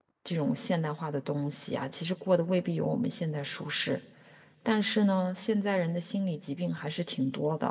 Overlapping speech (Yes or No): No